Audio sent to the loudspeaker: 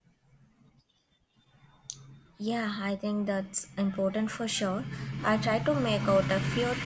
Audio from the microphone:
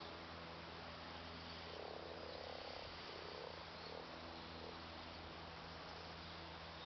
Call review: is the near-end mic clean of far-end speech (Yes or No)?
Yes